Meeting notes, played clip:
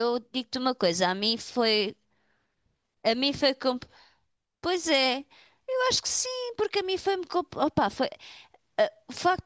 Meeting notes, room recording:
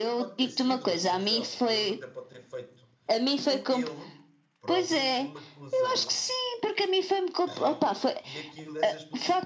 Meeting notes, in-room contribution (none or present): present